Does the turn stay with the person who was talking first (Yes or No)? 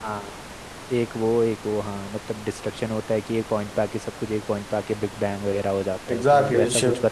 No